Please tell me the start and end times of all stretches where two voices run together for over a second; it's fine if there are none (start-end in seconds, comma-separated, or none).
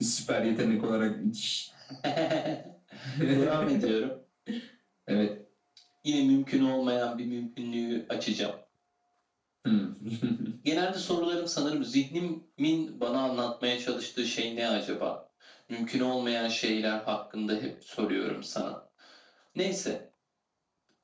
none